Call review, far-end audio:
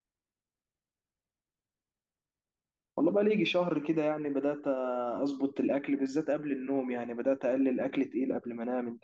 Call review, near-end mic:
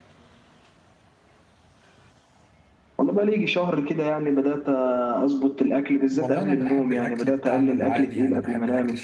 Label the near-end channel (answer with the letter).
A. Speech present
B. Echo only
A